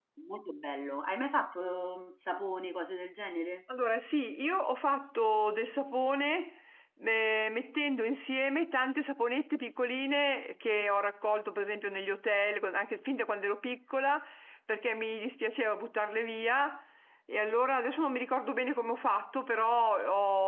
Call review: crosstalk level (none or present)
none